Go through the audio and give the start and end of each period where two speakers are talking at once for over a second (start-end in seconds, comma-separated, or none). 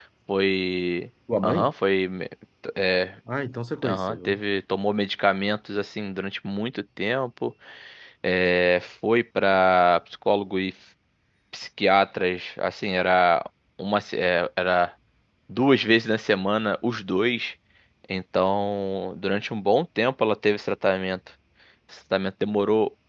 none